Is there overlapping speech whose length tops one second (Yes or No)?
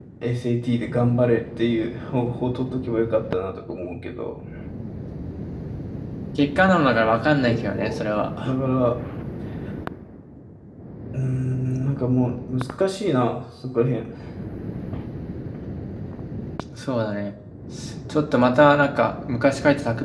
No